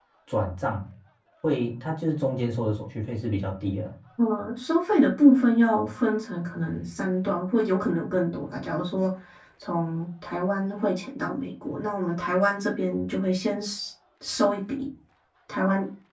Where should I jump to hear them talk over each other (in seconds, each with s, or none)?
none